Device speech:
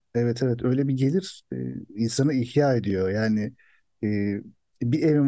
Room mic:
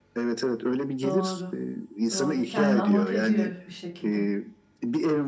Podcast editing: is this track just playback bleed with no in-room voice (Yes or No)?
No